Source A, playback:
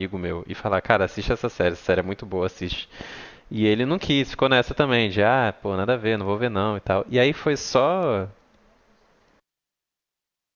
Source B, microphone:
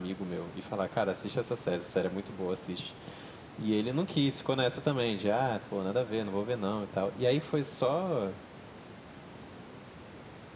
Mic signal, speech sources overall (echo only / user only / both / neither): echo only